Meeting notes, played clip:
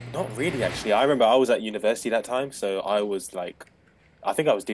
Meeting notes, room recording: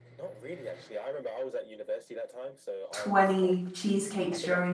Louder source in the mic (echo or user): user